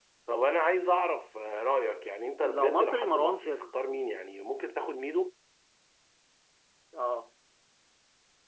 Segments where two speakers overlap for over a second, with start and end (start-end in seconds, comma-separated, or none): 2.4-3.7